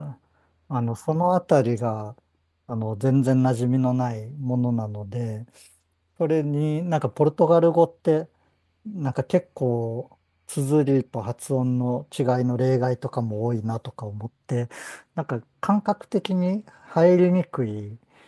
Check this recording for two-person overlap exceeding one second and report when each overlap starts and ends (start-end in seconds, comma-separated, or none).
none